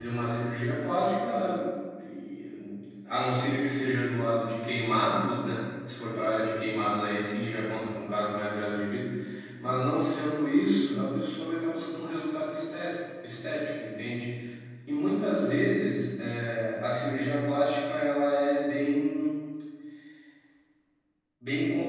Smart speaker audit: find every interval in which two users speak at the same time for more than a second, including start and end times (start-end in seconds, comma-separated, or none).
none